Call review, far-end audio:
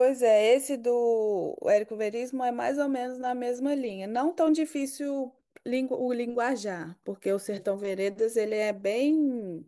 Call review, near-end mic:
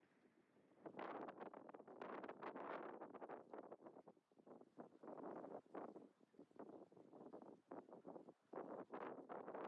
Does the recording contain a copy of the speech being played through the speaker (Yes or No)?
No